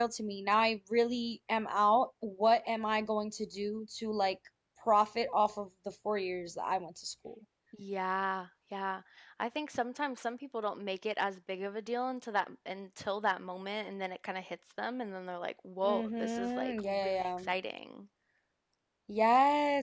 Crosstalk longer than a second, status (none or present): present